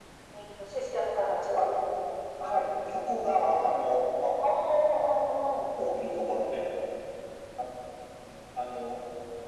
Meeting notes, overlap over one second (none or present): none